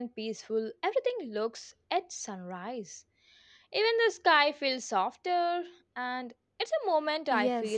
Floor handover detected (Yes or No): Yes